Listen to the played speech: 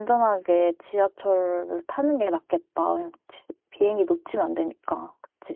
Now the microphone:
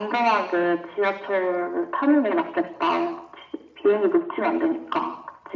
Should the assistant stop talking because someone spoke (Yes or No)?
No